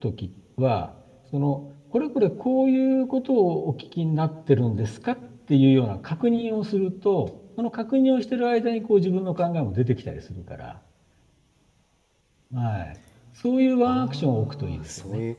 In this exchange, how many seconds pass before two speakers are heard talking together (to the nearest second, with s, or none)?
14 s